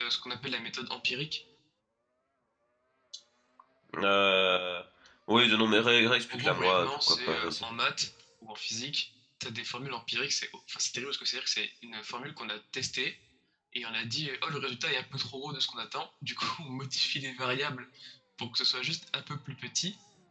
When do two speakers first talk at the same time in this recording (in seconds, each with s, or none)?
6.3 s